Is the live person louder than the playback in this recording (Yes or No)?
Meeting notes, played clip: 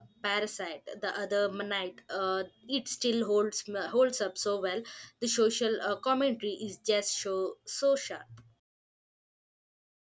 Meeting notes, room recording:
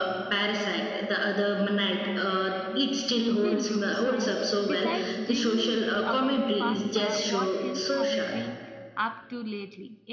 No